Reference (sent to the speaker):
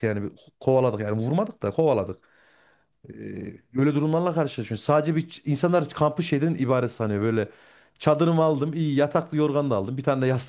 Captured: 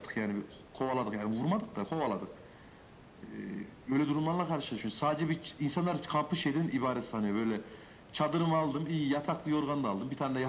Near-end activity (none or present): none